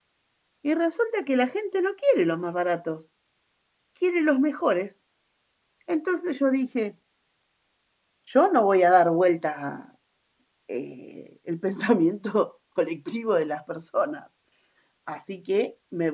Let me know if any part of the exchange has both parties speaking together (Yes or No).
No